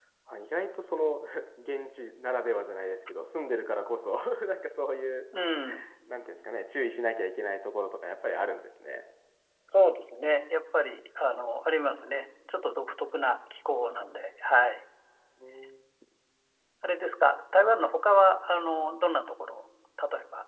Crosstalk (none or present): none